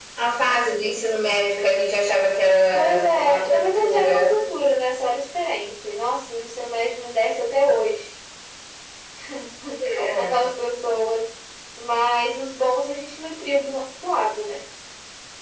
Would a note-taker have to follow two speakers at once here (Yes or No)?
Yes